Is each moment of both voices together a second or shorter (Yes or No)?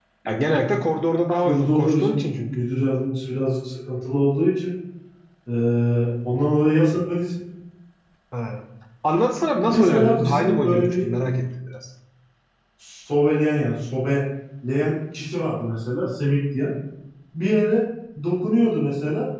No